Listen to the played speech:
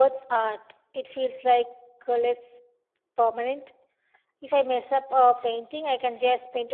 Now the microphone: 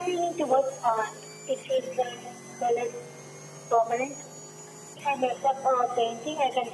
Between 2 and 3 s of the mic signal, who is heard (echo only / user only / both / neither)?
echo only